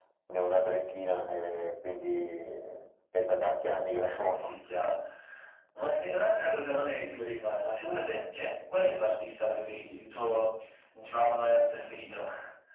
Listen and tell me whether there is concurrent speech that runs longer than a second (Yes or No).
No